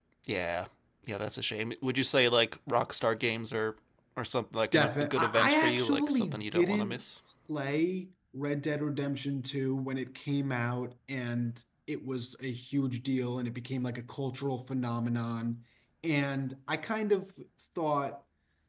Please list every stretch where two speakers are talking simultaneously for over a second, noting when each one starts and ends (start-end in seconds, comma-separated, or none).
4.7-7.0